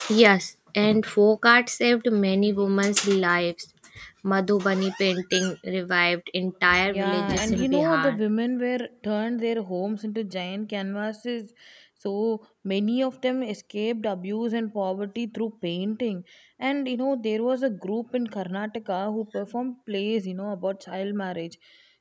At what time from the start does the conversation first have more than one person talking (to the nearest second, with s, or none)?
7 s